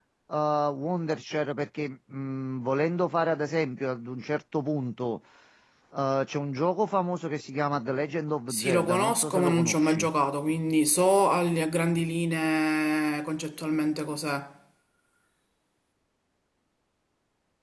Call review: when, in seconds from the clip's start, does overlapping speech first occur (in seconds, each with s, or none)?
8.5 s